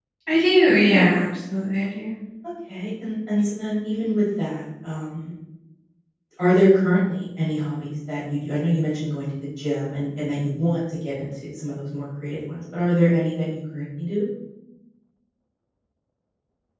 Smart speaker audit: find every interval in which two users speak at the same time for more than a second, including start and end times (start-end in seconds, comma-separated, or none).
none